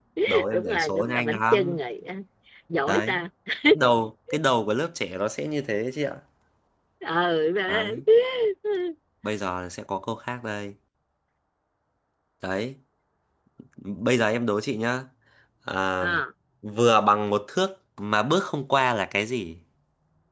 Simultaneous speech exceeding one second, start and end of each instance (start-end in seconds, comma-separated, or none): 0.5-1.8